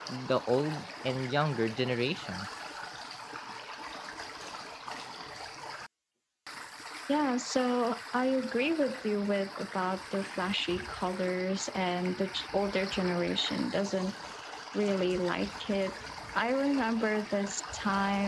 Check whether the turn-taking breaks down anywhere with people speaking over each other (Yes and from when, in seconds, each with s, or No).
No